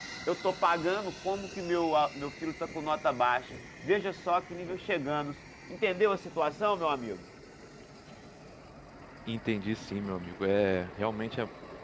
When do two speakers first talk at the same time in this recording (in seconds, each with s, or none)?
none